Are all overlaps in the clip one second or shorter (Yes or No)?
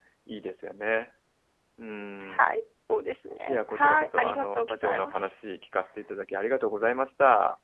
No